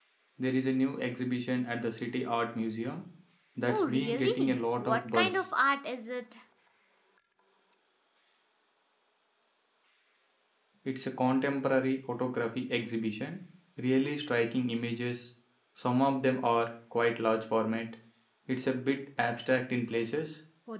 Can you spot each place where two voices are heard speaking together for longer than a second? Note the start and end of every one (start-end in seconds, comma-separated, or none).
3.7-5.5